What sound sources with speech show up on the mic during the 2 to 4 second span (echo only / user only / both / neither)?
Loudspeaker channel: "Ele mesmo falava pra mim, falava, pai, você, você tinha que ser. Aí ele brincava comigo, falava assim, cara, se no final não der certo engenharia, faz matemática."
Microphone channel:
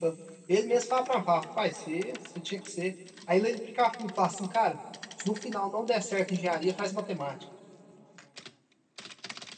echo only